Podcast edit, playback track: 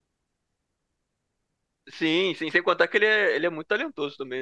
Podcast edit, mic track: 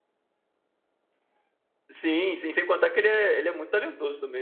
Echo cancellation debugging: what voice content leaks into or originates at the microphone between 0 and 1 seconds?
neither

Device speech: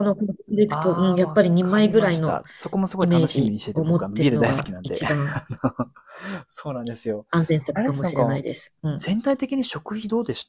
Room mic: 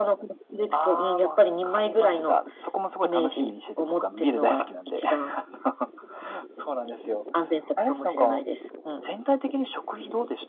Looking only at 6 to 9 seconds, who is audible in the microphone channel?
echo only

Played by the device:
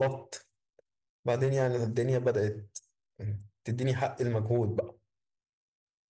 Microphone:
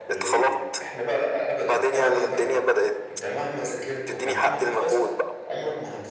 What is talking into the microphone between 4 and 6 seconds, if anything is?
both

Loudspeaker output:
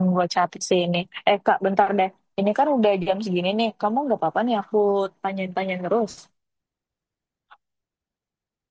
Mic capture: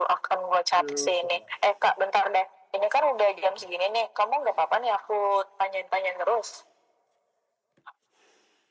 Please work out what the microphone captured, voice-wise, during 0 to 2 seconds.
both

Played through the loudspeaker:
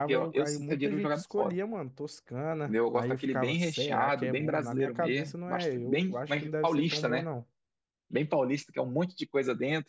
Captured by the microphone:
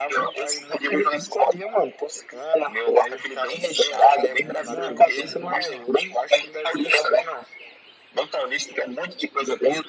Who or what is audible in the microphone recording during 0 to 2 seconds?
echo only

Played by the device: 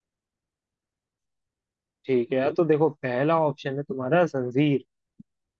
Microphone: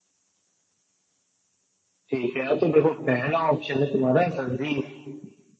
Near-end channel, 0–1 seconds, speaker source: neither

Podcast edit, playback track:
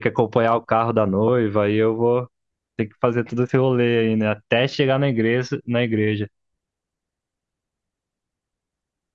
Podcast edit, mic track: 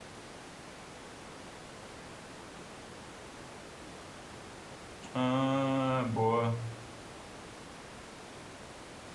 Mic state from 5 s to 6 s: user only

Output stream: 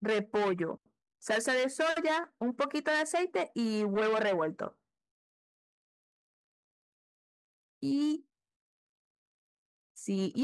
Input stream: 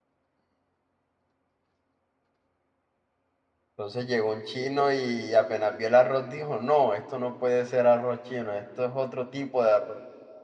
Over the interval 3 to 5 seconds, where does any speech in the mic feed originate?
user only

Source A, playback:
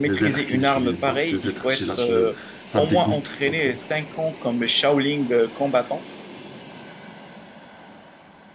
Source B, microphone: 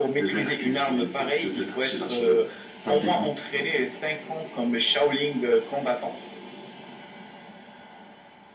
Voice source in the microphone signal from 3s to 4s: echo only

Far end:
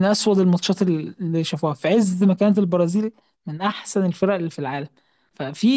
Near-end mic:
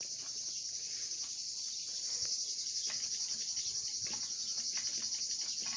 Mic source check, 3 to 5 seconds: neither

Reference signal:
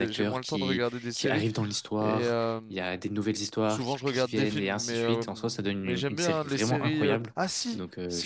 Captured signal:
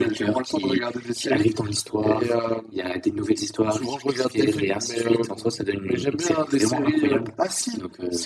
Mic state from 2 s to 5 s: echo only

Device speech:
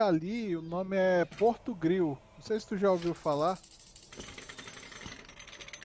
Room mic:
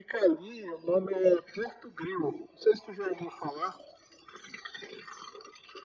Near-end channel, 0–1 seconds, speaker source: echo only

